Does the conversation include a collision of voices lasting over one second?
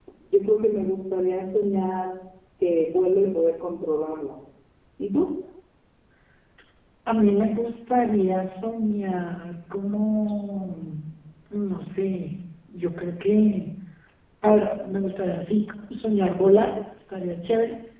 No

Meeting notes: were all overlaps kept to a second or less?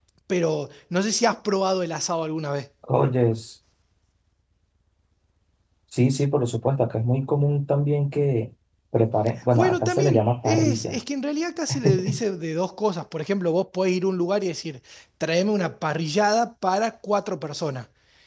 No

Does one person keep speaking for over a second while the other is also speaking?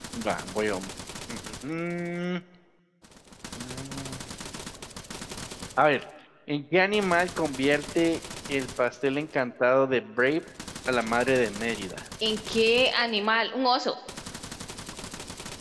No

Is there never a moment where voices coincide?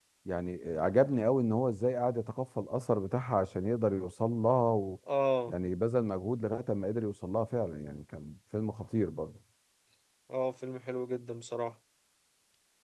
Yes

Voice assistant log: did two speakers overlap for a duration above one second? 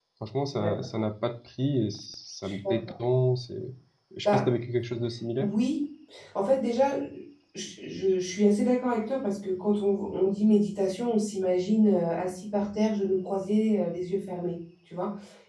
No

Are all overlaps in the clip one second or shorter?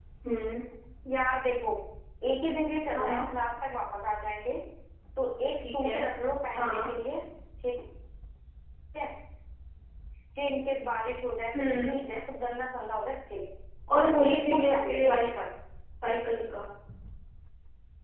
No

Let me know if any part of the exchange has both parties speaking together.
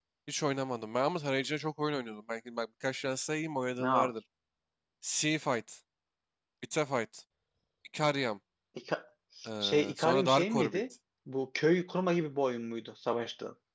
Yes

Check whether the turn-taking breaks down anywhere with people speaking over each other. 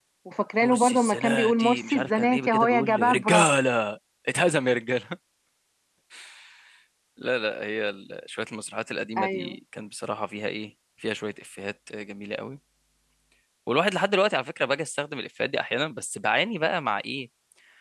Yes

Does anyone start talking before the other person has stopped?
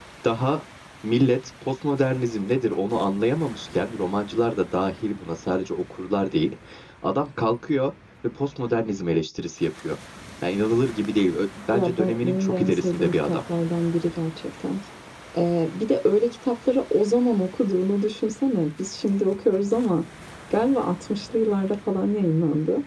Yes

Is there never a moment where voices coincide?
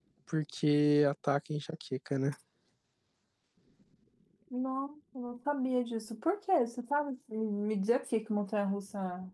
Yes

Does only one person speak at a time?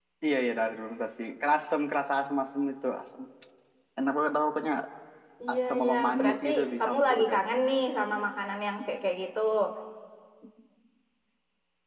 No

